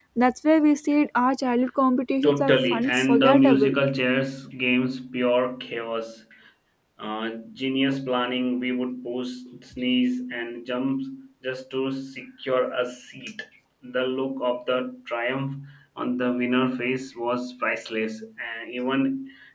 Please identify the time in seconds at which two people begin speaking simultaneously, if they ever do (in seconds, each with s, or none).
2.2 s